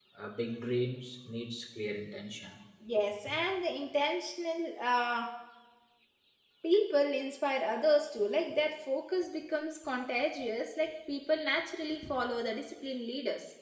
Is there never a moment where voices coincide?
Yes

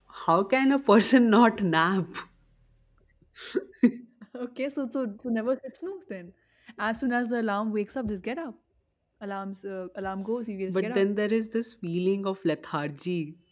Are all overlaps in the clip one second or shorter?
Yes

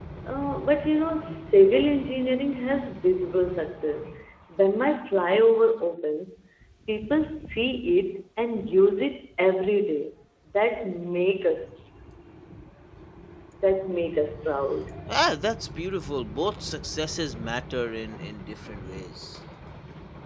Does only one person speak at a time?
Yes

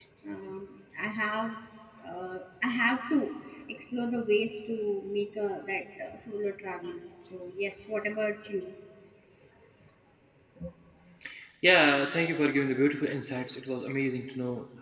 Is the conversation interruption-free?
Yes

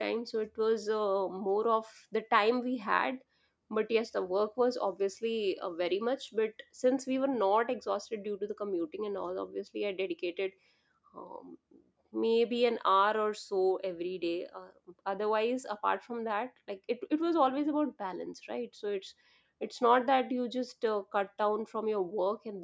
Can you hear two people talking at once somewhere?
No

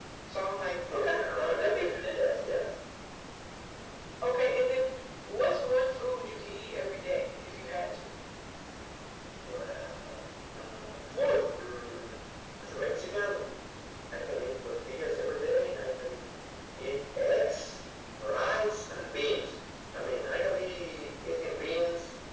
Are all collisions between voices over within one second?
No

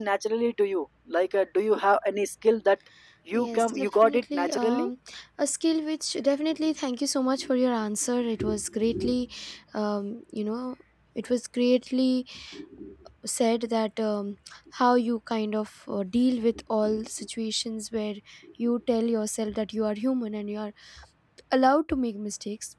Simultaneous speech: Yes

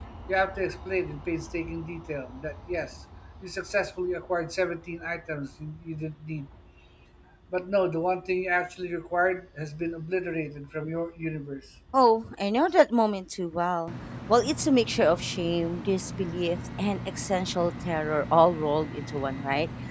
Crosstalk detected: No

